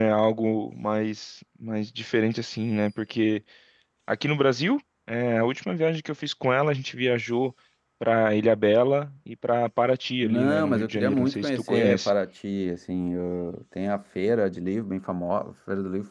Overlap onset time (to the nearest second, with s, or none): 10 s